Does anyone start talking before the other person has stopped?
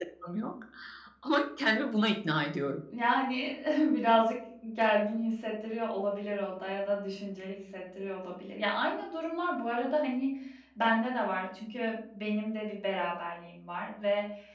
No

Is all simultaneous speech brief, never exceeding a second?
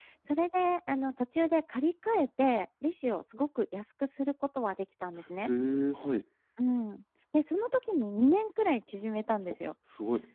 Yes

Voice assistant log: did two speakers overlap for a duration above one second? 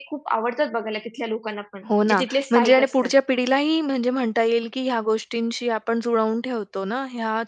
Yes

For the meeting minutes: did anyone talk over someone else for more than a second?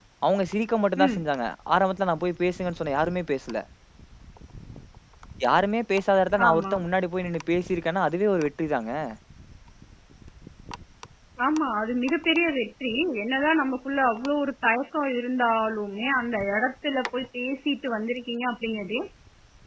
No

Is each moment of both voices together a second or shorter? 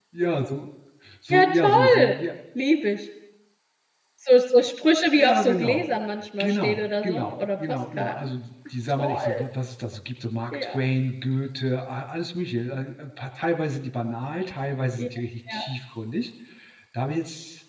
No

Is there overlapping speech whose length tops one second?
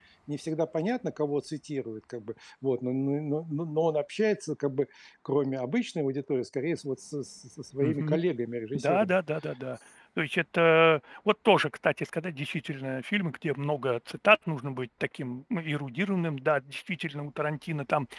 No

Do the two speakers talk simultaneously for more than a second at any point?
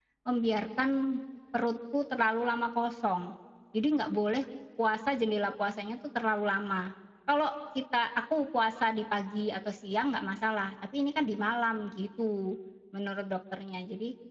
No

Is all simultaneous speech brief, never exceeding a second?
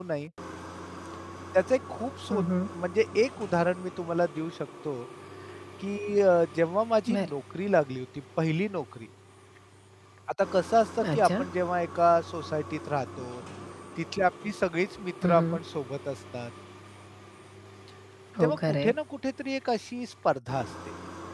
Yes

